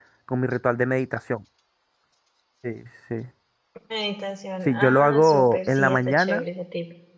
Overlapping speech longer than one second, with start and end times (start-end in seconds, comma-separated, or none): 4.7-6.4